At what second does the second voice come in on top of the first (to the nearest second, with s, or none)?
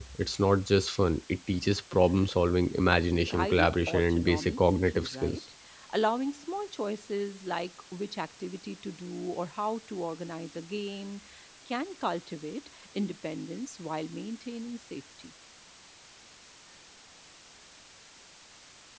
3 s